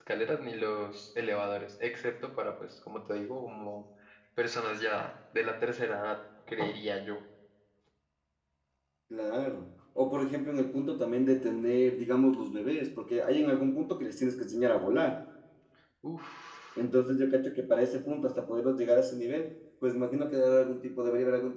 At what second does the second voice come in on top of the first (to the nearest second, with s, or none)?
none